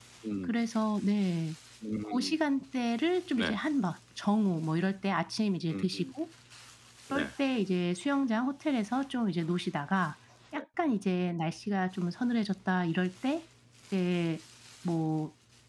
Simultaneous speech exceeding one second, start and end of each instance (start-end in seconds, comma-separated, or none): none